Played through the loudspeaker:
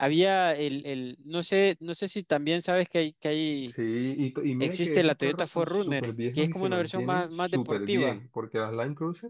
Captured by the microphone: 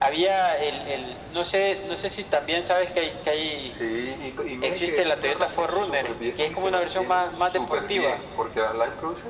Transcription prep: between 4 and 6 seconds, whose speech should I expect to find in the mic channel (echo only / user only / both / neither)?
echo only